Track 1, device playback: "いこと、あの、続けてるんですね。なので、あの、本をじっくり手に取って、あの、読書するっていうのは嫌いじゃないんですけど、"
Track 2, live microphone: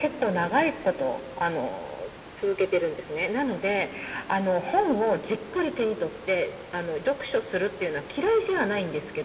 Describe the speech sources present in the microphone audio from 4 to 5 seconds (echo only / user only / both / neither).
echo only